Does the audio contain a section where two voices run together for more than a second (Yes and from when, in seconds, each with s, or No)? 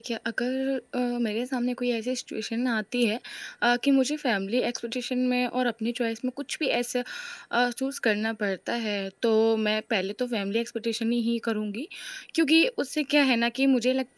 No